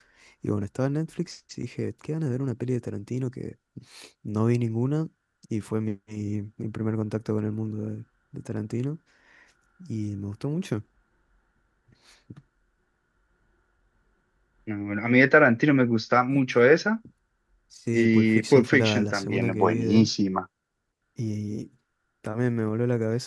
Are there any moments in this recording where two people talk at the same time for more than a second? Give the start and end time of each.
17.9-20.1

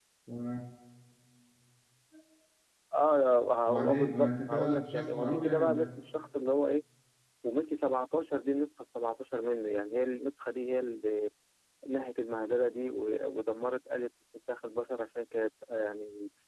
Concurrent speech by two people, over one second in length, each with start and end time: 3.7-6.0

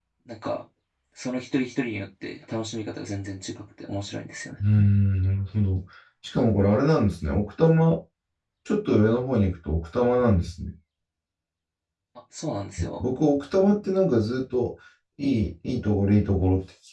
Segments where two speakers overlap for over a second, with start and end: none

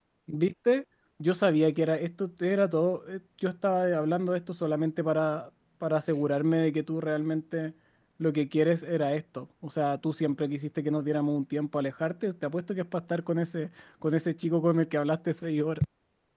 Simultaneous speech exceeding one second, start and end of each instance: none

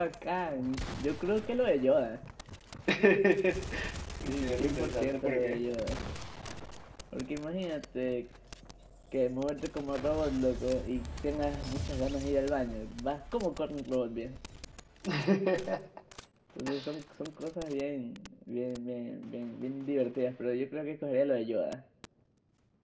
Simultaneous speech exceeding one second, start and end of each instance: 4.3-5.6

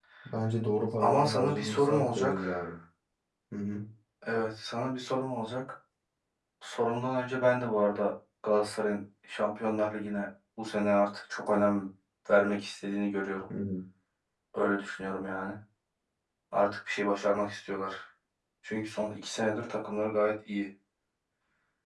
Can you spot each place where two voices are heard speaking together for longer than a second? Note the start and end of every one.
1.0-2.6

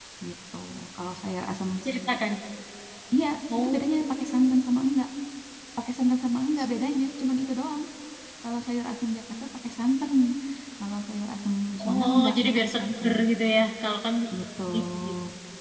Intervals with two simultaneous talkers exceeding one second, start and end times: 11.8-13.1

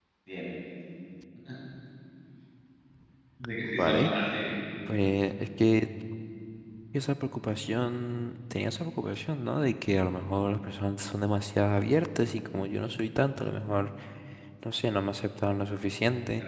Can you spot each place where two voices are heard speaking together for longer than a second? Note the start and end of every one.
none

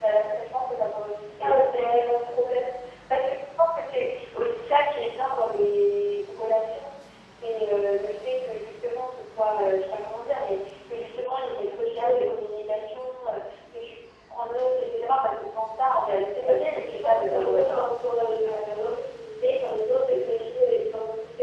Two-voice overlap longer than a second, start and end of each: 16.4-17.8

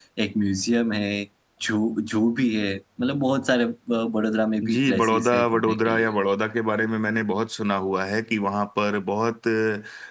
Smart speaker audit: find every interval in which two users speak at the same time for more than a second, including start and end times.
4.7-6.1

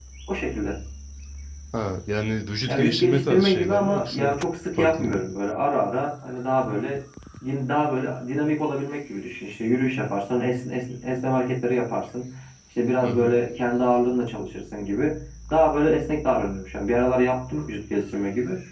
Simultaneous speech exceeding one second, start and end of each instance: 2.7-4.2

